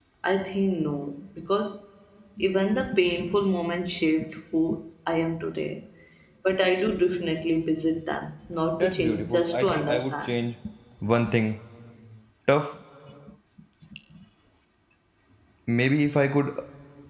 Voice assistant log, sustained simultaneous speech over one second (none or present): present